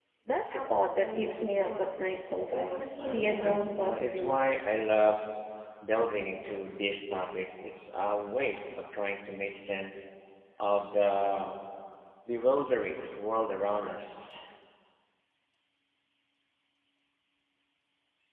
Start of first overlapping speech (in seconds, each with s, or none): 3.0 s